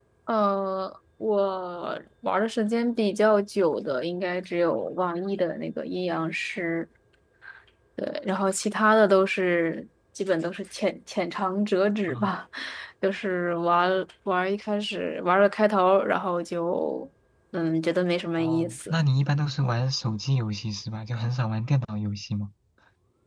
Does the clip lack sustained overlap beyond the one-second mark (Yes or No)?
Yes